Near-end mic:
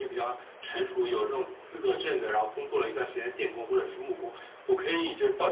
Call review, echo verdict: present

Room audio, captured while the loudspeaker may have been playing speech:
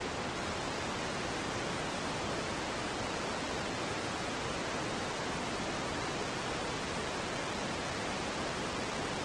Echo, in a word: none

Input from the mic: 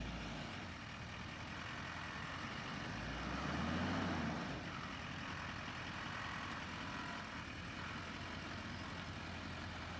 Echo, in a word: none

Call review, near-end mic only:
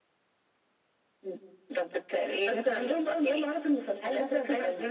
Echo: present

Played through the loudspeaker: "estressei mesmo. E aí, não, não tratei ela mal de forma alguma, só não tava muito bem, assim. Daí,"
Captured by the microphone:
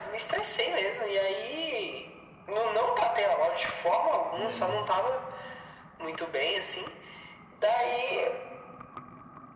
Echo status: present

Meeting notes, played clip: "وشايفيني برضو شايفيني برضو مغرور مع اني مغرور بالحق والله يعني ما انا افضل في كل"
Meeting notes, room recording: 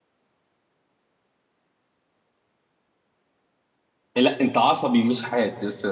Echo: none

